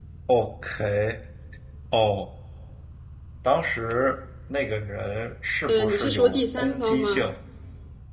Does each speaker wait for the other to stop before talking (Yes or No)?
No